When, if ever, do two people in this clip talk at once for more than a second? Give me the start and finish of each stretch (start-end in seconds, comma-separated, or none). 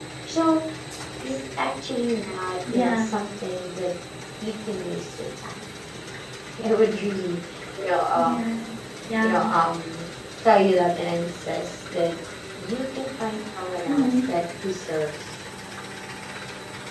none